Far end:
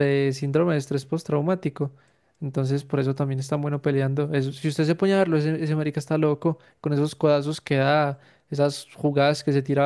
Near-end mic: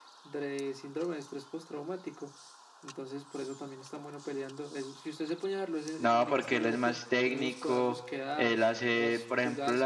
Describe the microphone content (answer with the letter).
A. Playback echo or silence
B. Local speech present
B